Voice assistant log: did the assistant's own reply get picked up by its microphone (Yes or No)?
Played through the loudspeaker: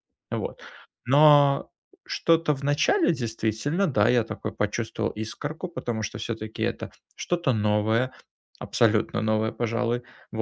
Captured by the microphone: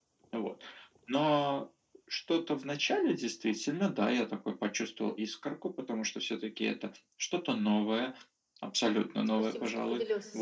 Yes